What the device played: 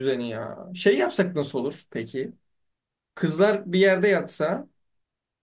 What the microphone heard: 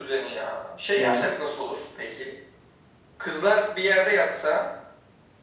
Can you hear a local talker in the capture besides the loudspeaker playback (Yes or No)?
Yes